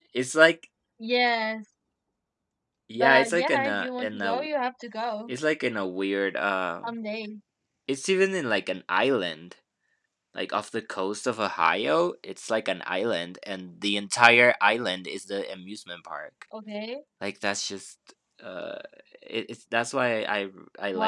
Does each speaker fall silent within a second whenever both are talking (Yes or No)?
No